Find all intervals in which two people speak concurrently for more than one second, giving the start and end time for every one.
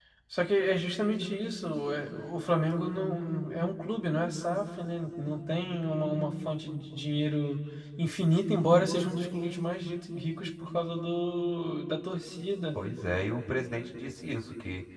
none

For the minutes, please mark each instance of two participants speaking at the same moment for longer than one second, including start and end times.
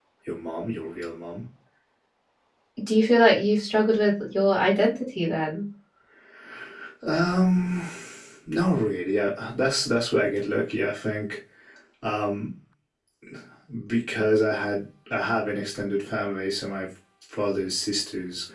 none

